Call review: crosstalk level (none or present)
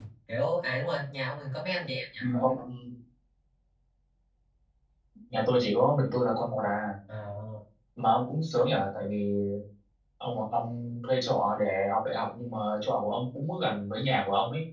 none